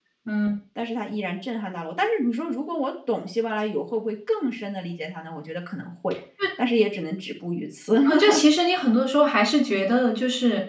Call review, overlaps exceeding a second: none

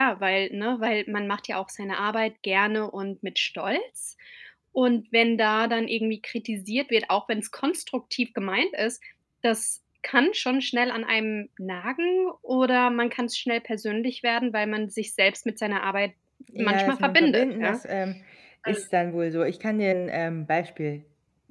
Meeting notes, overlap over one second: present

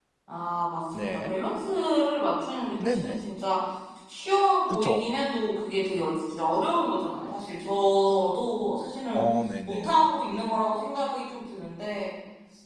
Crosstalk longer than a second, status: none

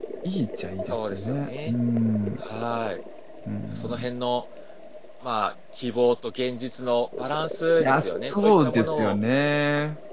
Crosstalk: present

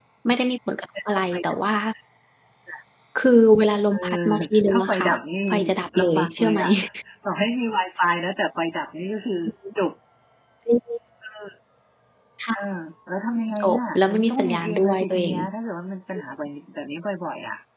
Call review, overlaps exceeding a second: present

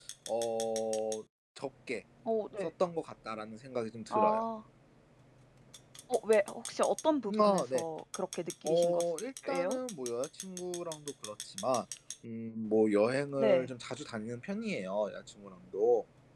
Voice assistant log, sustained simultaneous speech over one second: none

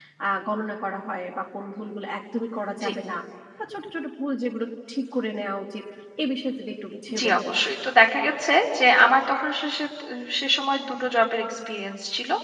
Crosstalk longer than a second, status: none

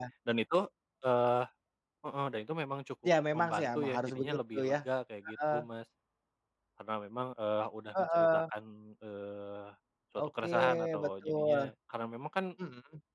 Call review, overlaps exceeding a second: present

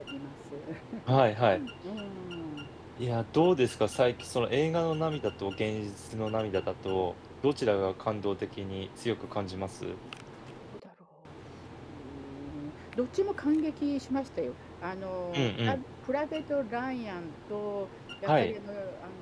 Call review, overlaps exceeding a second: none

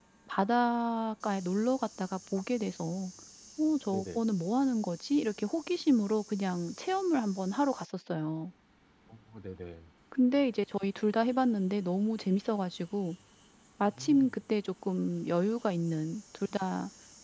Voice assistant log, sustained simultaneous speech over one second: none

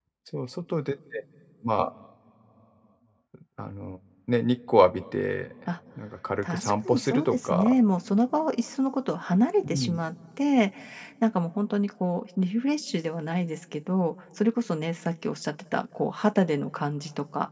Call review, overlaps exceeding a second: present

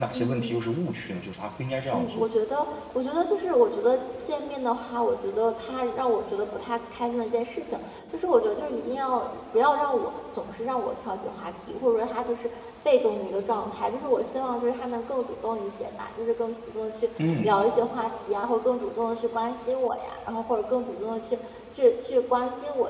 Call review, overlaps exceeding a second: none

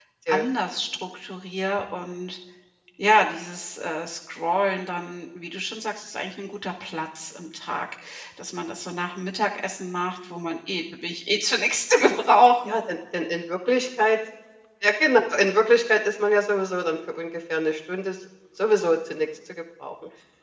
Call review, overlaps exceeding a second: none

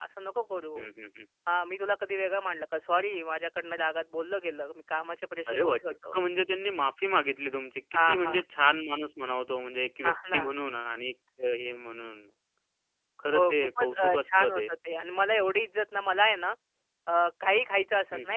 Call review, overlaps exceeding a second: present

